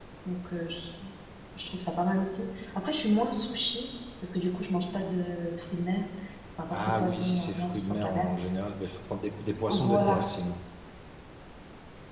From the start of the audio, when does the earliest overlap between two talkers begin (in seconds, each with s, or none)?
6.7 s